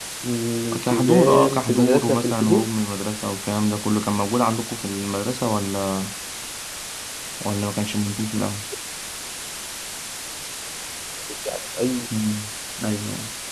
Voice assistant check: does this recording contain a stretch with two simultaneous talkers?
Yes, from 0.8 s

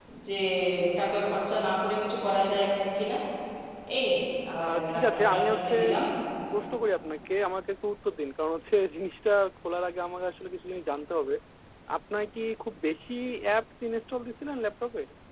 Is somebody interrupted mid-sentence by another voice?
Yes, from 4.6 s

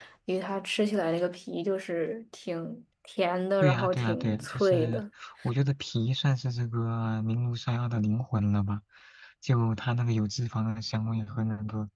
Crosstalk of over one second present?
Yes, from 3.6 s

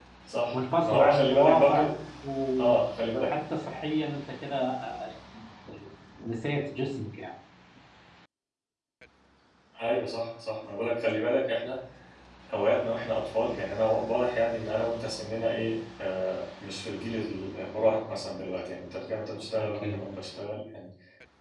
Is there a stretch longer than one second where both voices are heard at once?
Yes, from 0.5 s

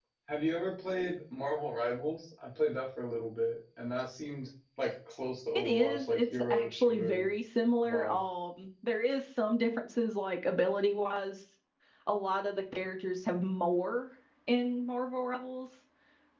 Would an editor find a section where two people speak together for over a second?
Yes, from 5.6 s

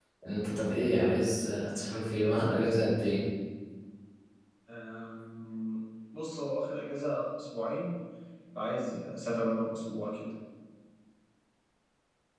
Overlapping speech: No

